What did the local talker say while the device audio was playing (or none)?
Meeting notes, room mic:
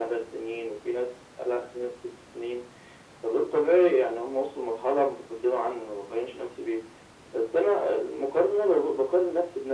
none